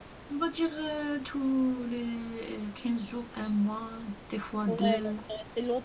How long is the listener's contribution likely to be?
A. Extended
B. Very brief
A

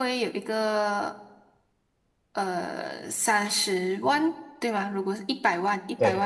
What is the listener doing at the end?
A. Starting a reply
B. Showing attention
B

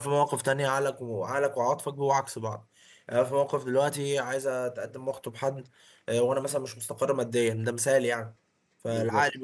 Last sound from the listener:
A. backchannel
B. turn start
A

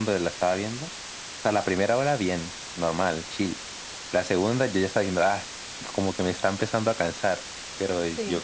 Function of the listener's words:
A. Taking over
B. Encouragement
B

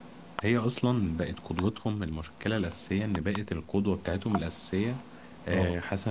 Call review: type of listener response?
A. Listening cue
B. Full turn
A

